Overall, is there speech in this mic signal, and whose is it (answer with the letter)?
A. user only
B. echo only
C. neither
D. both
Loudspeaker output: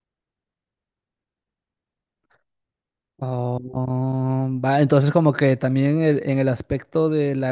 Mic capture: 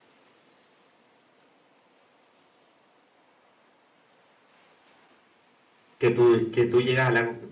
A